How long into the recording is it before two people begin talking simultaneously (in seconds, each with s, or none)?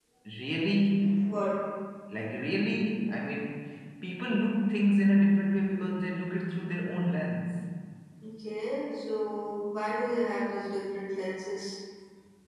none